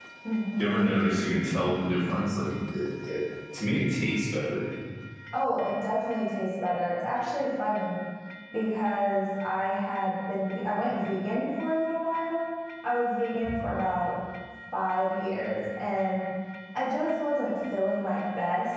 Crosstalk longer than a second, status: none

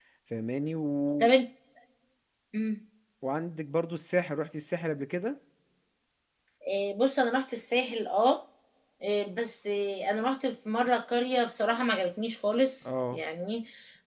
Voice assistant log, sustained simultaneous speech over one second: none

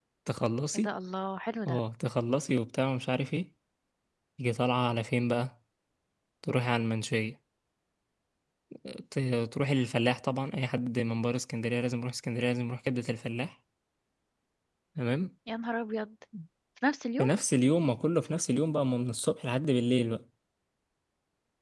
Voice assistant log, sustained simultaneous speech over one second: none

